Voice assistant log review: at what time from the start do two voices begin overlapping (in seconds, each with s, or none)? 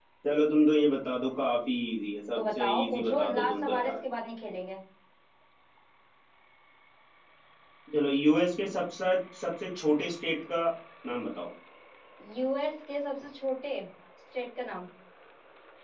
2.4 s